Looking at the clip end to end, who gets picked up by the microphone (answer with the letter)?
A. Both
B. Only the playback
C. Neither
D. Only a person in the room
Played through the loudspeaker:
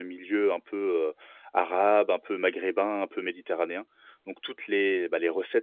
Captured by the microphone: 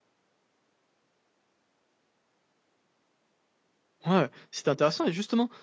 D